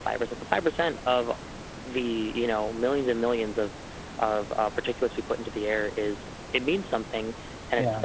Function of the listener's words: listening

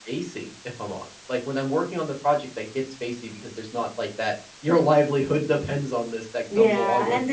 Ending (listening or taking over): taking over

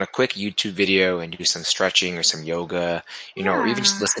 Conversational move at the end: listening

